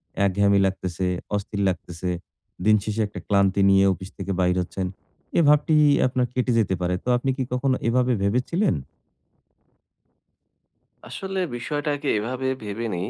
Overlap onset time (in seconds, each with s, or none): none